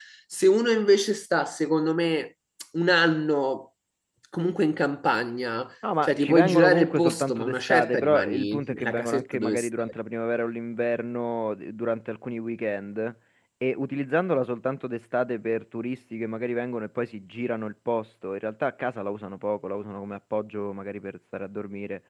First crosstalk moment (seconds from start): 5.8 s

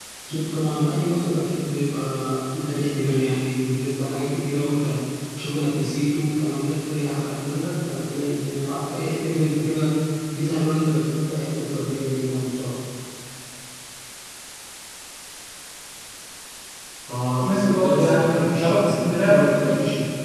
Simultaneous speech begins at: 17.4 s

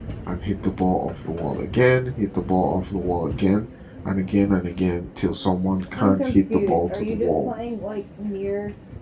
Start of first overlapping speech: 6.0 s

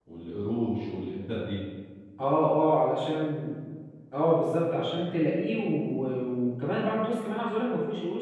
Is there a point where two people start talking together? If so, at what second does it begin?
none

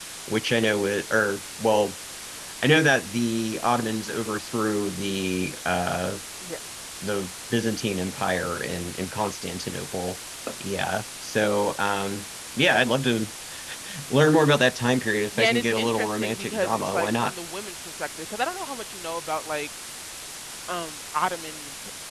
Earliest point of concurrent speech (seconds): 15.3 s

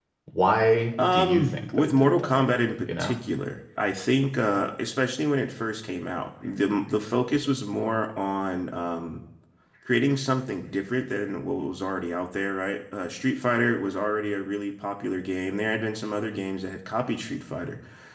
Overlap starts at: 1.0 s

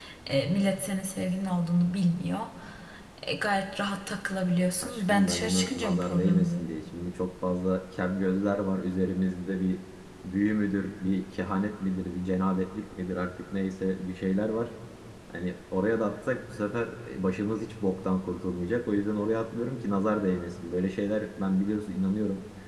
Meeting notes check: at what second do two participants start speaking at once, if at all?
4.8 s

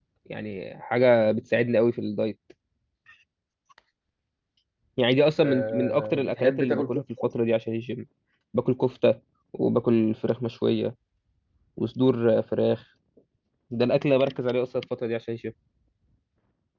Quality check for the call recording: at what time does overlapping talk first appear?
5.4 s

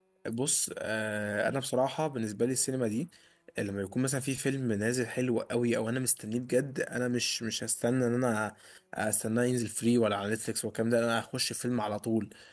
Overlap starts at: none

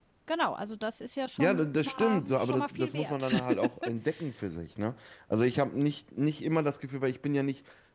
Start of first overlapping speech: 1.4 s

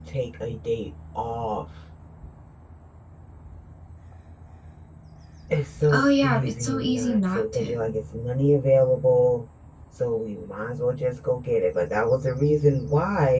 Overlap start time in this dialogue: 5.9 s

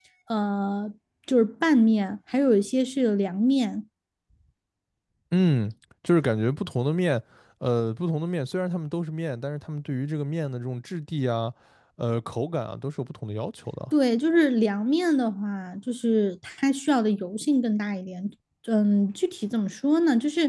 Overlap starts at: none

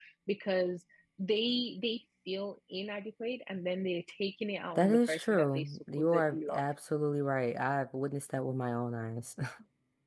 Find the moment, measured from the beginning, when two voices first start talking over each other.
4.8 s

